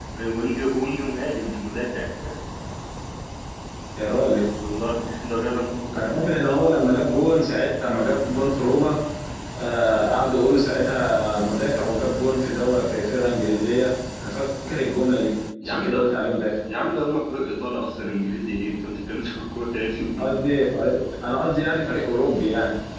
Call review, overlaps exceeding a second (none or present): none